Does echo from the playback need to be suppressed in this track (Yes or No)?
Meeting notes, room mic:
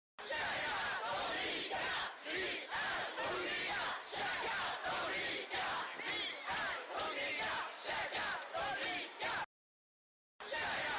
No